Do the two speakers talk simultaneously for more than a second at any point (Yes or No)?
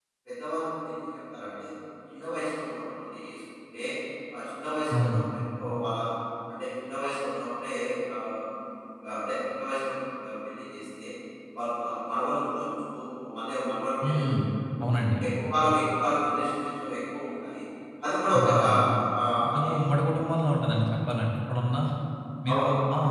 No